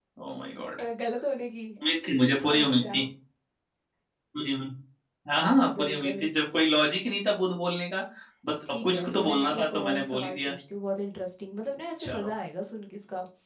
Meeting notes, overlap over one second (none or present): present